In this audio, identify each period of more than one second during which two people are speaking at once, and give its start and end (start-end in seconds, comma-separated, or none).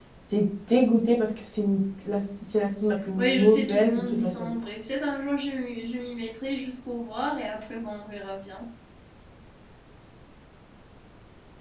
3.2-4.5